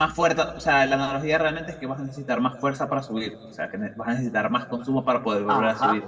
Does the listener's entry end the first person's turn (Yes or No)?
Yes